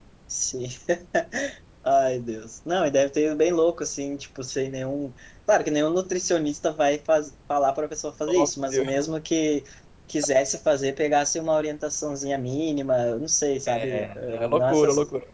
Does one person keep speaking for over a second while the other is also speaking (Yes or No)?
Yes